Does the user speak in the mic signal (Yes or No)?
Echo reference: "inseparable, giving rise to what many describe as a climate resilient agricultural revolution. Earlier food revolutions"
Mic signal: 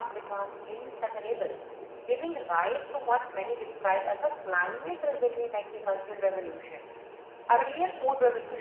No